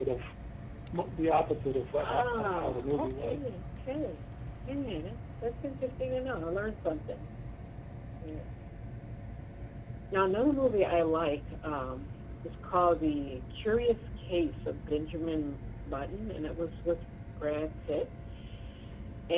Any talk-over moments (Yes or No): Yes